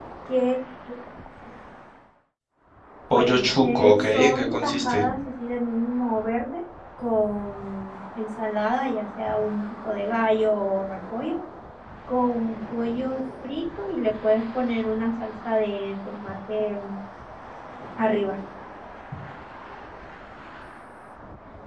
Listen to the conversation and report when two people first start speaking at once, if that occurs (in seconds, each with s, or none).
3.1 s